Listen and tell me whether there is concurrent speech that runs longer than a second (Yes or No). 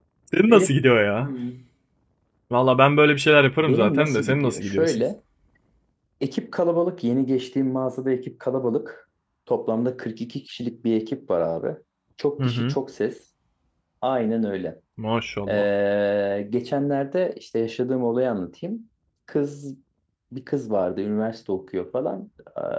Yes